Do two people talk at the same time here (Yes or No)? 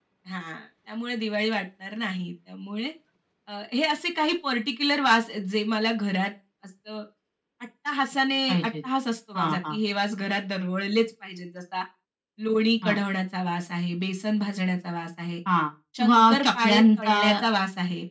Yes